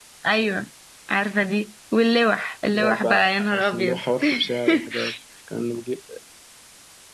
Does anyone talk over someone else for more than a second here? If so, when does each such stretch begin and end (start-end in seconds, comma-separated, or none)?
2.7-4.0